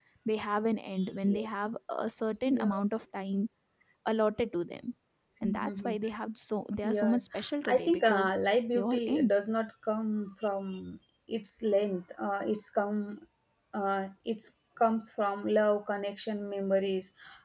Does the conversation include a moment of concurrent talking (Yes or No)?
Yes